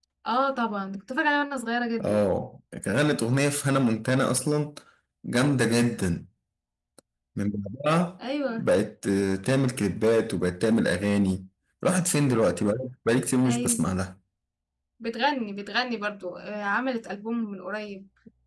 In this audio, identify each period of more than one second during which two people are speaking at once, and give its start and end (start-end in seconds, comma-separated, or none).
none